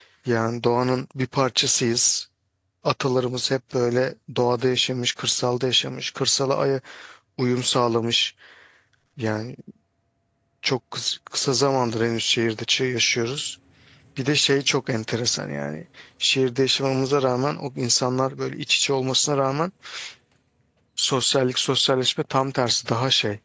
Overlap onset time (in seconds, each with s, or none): none